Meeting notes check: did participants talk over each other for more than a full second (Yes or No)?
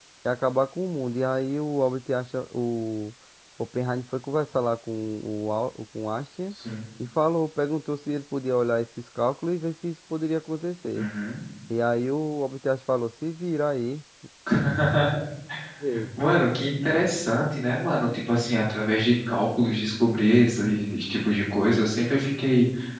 No